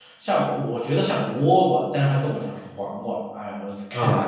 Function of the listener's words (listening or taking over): taking over